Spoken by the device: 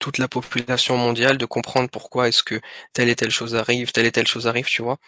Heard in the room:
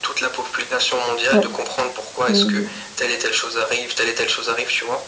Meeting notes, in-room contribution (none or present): present